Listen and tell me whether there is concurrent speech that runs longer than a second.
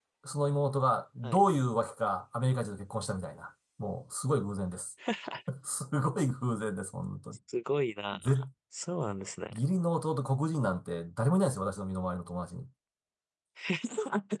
No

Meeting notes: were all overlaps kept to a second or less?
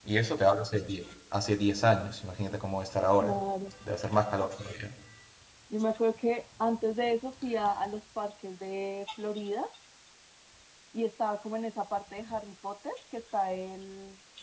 Yes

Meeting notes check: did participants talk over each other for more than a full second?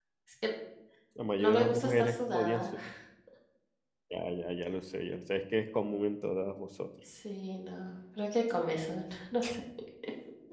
Yes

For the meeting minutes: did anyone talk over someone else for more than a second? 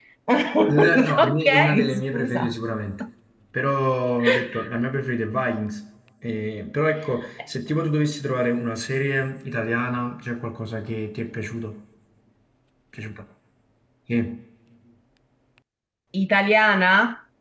Yes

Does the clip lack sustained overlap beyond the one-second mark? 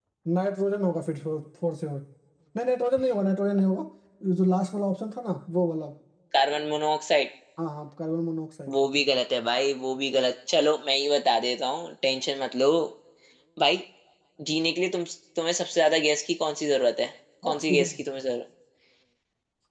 Yes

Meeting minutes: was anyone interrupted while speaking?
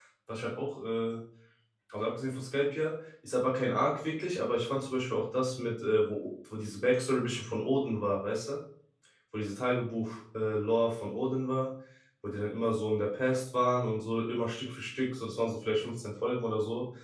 No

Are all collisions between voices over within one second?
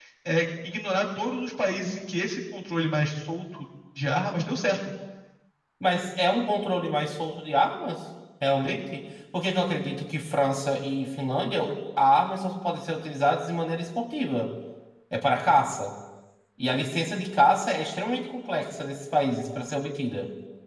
Yes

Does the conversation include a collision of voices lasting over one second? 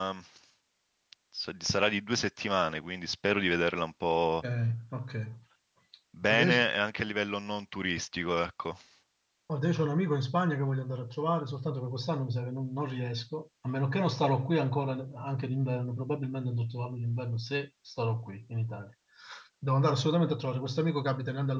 No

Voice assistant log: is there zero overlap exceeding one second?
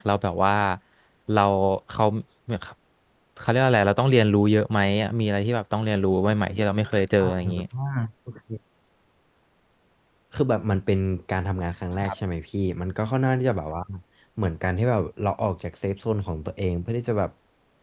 Yes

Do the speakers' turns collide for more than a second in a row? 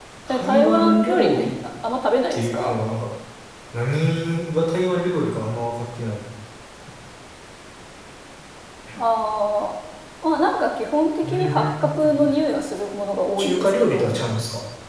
Yes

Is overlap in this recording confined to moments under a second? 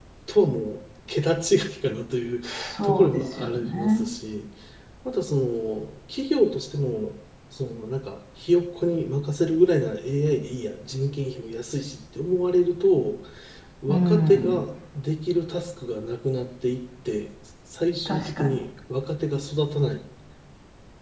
No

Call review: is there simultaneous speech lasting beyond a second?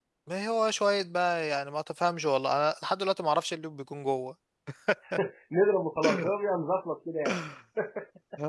No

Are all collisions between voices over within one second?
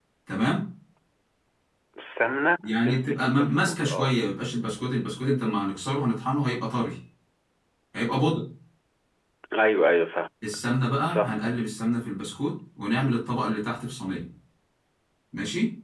No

